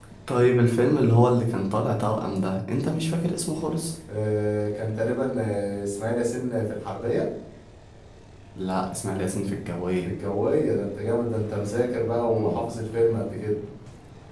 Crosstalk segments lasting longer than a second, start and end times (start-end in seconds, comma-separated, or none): none